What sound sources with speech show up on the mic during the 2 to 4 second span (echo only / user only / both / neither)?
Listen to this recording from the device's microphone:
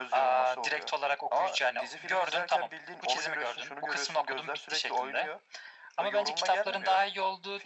echo only